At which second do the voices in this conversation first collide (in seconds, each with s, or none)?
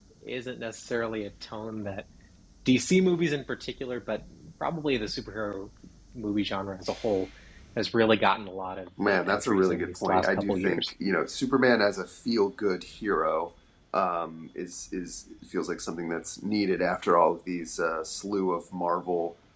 9.0 s